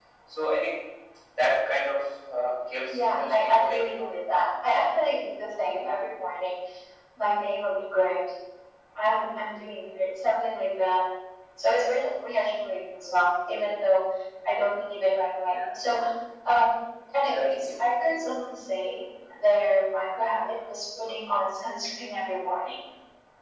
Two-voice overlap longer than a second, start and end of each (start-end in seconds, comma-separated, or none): 2.9-4.1